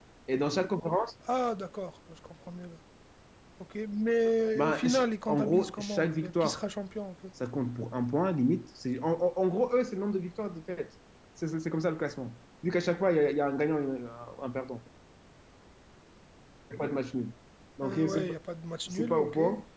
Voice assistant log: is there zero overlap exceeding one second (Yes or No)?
No